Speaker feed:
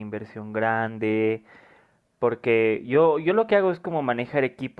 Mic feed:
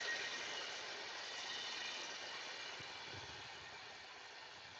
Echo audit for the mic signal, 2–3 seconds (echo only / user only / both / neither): neither